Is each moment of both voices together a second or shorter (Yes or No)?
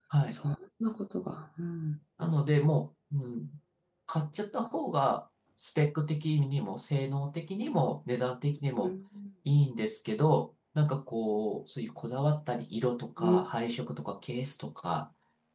Yes